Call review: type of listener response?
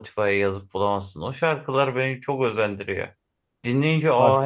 listening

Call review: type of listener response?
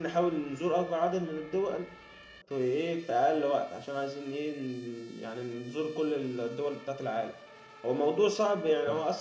listening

